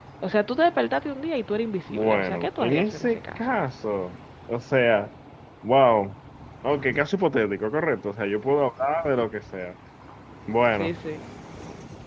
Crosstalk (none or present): present